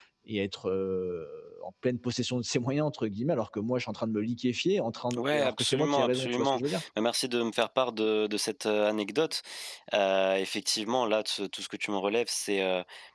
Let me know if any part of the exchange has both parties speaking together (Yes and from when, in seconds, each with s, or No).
Yes, from 5.1 s